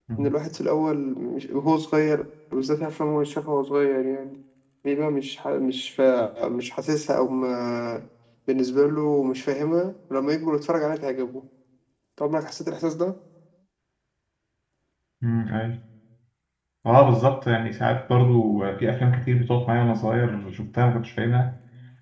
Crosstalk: none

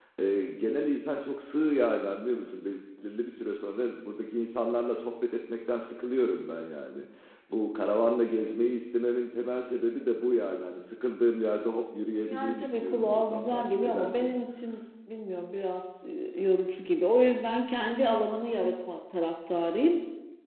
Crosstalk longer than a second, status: present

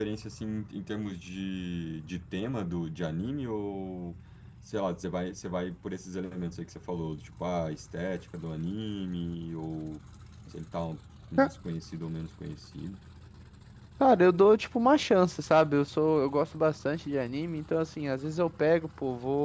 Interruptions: none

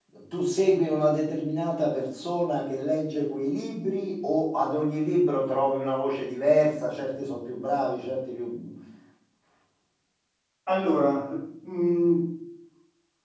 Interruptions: none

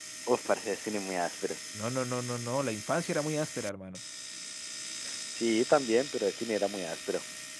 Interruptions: none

